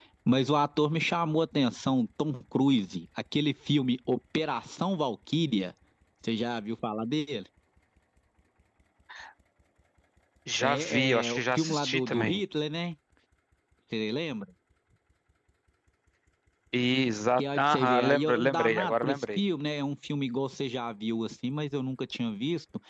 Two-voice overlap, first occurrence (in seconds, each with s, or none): 10.6 s